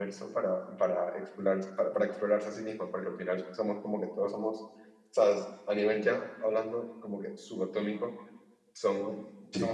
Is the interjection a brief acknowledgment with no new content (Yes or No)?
Yes